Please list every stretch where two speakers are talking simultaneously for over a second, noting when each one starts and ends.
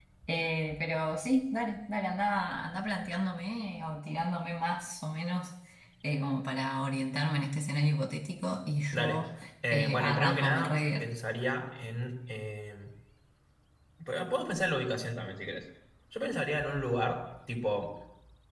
9.7-11.1

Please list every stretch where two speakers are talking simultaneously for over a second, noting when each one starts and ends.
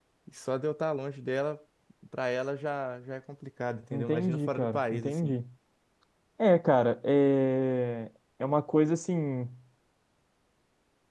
3.9-5.4

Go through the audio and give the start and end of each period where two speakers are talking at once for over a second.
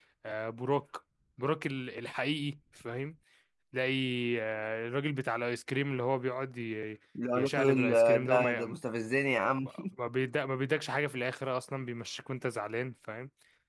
7.3-8.7

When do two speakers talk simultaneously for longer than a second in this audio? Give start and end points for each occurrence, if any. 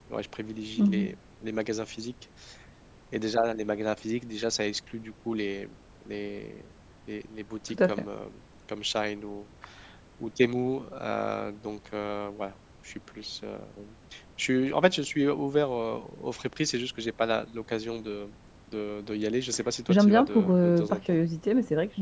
19.9-21.2

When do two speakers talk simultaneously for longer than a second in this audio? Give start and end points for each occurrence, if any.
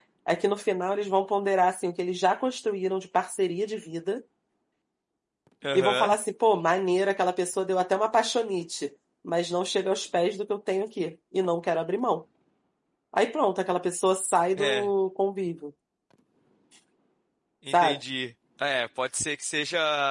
none

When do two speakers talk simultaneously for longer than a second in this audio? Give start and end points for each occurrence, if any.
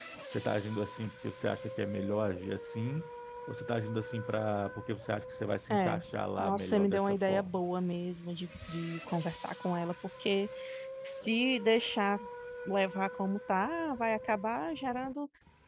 6.4-7.6

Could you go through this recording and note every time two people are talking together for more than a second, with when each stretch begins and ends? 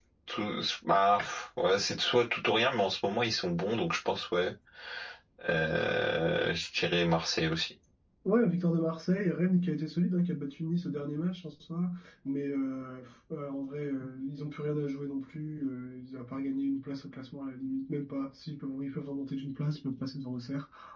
none

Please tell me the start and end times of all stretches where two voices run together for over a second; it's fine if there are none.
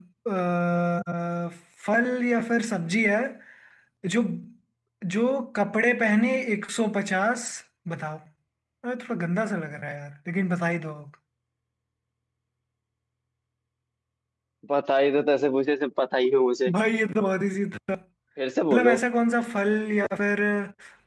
none

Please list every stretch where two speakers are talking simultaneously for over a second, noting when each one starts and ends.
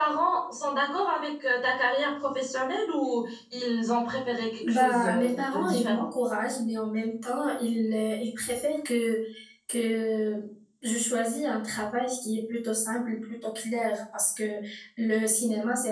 4.6-6.0

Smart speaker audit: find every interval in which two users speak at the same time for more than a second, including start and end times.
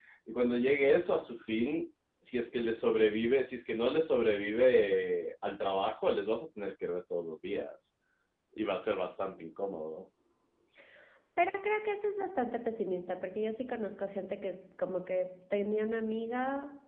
none

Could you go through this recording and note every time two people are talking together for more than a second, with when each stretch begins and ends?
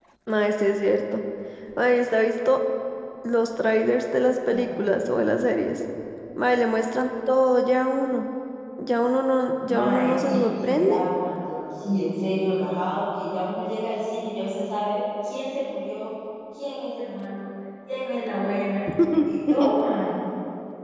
9.7-11.0

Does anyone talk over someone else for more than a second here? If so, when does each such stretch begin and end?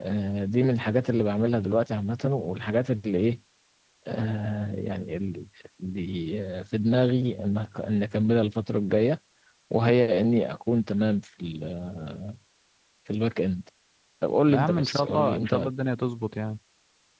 14.5-15.7

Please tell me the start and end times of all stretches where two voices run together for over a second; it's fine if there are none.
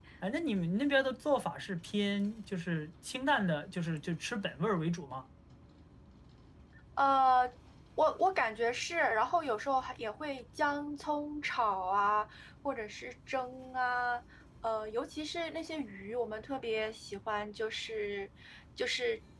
none

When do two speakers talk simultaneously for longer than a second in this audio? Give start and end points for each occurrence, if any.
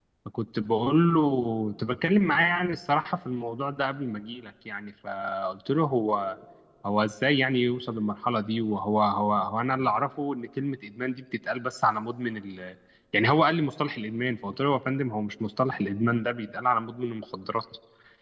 none

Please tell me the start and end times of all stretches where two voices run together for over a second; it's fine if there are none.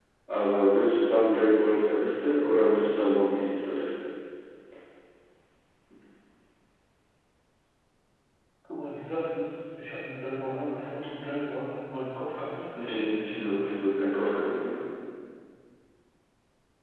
12.7-14.1

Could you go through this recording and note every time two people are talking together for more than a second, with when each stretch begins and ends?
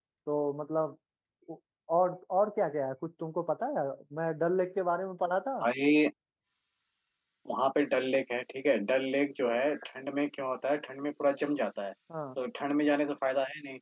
none

